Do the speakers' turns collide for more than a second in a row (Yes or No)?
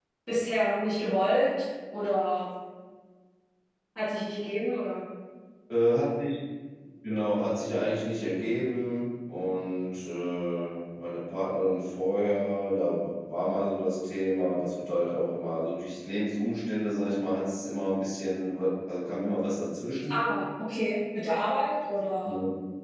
No